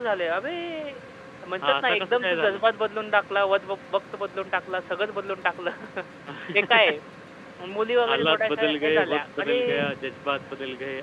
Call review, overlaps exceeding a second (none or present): present